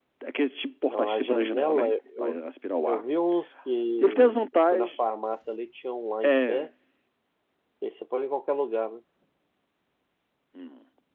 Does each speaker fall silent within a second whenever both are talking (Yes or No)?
No